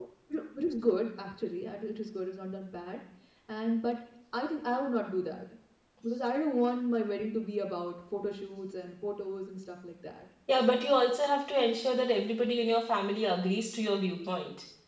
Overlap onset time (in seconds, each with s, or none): none